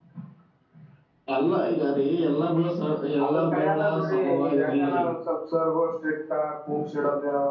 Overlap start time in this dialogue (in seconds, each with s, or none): 3.2 s